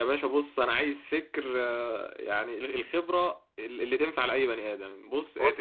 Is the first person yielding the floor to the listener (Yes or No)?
No